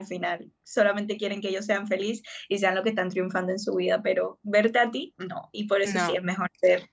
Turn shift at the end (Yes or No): No